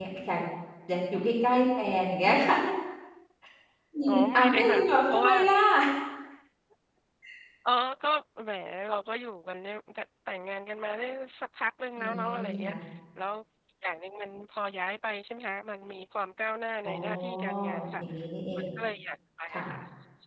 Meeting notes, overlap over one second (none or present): present